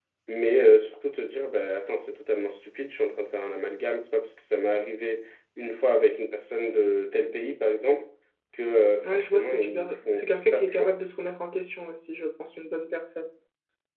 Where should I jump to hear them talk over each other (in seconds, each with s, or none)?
9.0 s